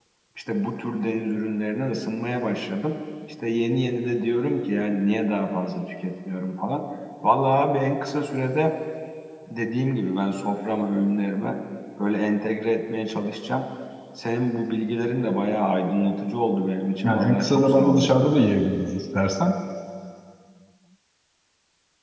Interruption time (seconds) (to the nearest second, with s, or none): 17 s